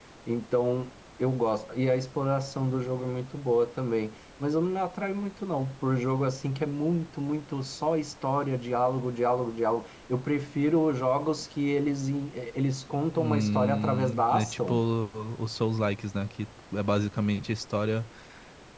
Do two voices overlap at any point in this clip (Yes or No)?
Yes